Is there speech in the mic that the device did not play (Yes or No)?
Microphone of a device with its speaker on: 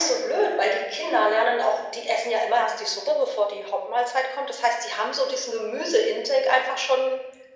No